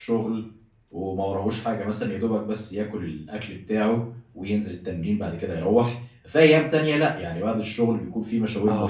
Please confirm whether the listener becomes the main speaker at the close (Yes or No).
Yes